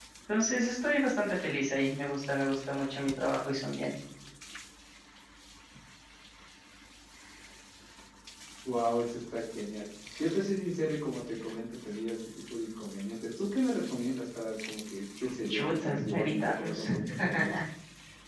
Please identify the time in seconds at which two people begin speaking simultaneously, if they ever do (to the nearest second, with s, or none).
15 s